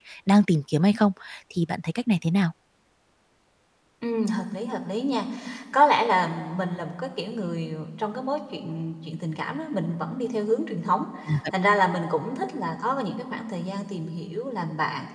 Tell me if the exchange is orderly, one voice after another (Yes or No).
Yes